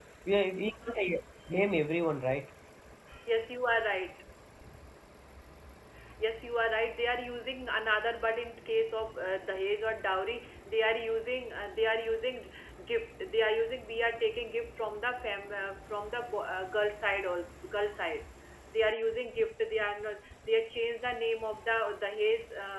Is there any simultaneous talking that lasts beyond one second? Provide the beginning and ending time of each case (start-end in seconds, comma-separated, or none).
none